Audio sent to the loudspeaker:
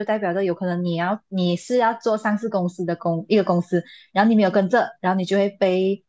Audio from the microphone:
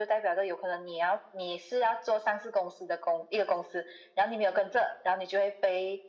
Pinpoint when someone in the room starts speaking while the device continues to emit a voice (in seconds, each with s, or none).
none